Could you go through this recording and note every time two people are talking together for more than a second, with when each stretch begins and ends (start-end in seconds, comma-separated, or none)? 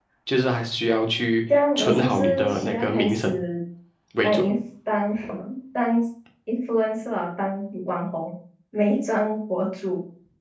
1.8-3.3